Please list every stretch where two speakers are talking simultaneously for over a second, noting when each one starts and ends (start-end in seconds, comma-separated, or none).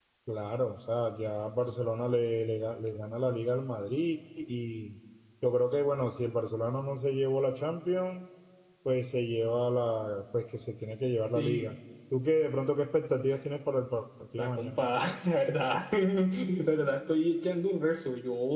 none